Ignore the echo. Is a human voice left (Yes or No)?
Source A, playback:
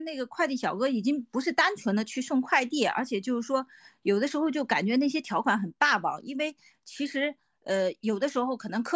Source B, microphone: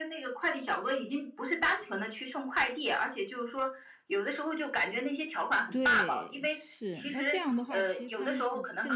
Yes